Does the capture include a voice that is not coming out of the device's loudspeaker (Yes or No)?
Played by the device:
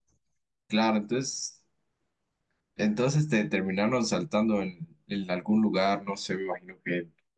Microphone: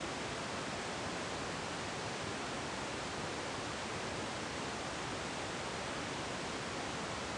No